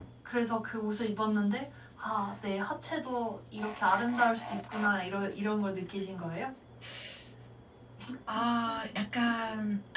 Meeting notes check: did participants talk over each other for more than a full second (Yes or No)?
No